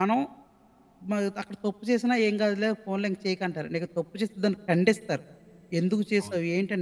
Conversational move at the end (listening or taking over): listening